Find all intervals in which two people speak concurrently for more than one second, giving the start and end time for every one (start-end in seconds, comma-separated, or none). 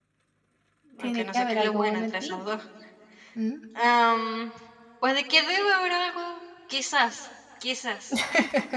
1.0-2.4